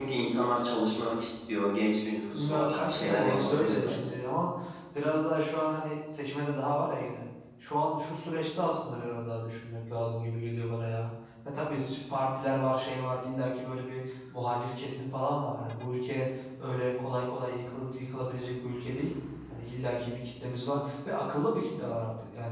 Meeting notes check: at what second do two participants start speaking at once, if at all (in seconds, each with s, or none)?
2.3 s